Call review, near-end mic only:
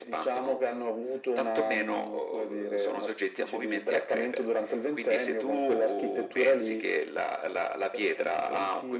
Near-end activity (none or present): none